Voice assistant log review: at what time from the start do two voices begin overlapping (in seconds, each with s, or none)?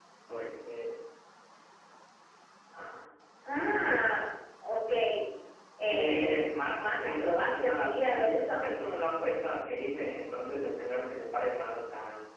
5.9 s